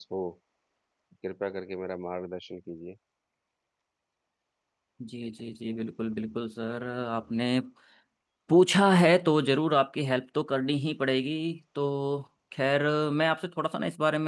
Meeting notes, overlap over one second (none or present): none